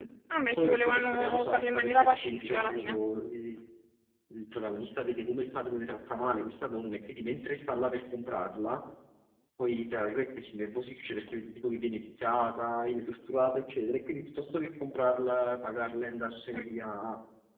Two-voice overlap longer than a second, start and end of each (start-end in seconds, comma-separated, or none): 0.5-3.0